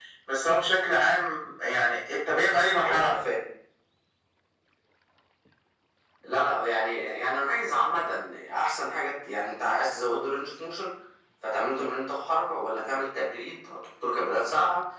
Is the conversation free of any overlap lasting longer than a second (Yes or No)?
Yes